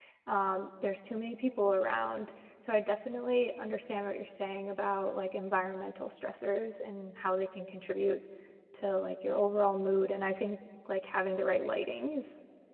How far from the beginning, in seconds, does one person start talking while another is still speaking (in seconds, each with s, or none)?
none